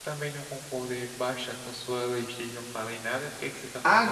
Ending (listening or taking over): taking over